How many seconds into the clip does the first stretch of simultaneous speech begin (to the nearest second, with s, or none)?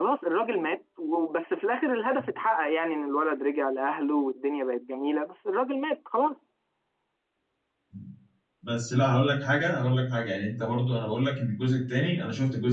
none